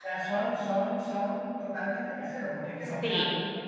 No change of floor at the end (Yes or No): Yes